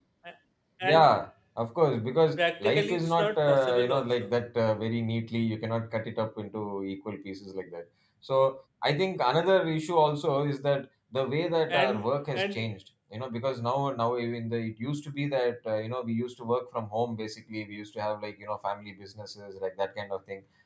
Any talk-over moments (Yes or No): Yes